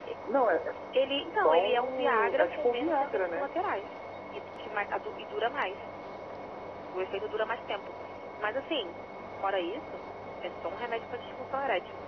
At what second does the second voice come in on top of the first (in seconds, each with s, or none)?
1.2 s